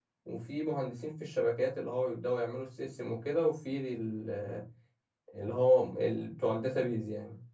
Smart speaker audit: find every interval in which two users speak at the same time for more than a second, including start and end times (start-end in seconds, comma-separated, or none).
none